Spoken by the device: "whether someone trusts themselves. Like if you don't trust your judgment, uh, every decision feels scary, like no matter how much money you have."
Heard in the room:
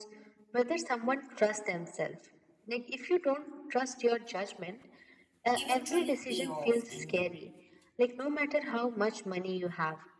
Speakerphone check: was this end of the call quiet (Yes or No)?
No